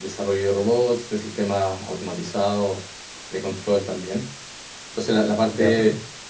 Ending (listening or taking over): listening